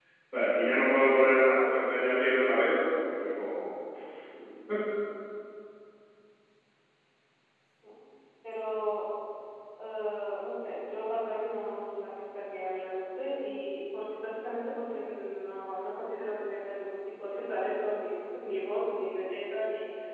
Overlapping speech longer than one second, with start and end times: none

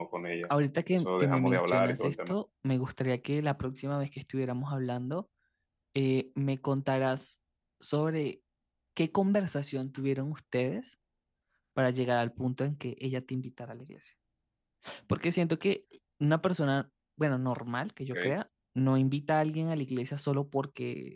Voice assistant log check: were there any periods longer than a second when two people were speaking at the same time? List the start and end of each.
0.9-2.3

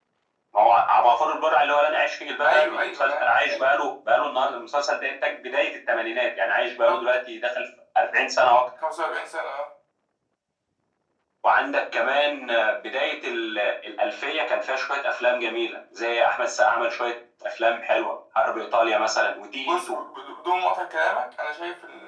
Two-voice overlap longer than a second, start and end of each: 2.4-3.6

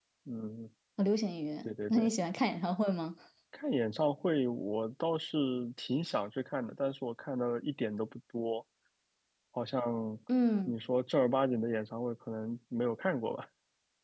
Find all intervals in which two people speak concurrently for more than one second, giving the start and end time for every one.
none

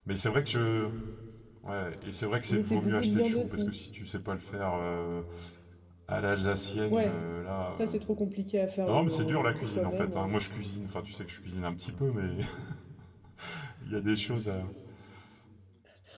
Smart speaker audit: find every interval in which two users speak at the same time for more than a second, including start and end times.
2.5-3.7, 8.9-10.3

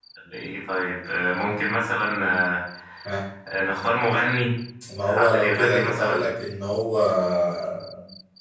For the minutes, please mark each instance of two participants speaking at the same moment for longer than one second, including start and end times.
5.0-6.2

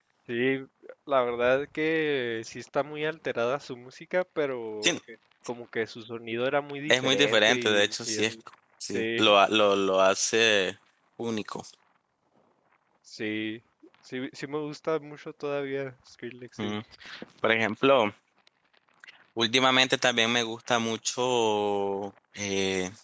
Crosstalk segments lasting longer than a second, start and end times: 6.9-8.3

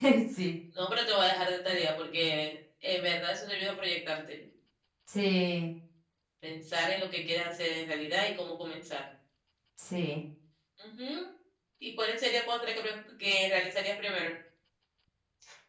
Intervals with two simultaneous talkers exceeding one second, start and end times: none

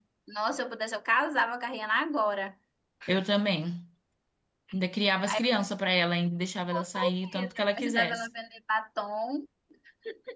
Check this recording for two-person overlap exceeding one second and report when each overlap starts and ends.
6.7-8.3

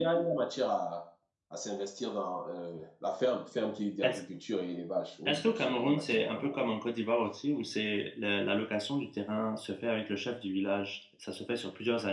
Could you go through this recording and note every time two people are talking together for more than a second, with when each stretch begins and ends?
5.3-6.6

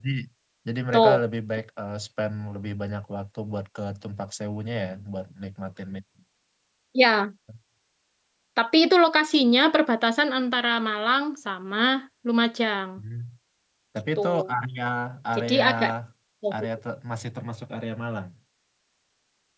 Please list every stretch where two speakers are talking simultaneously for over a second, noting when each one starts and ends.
none

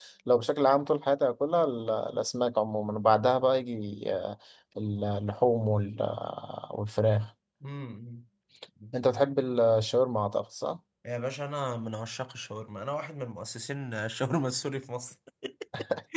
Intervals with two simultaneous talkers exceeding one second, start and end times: none

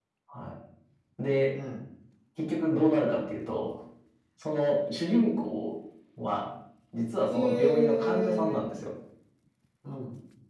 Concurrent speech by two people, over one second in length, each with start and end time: 7.3-8.6

